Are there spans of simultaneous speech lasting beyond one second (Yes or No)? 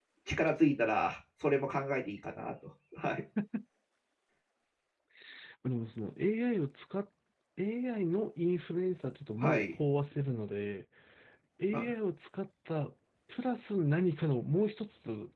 No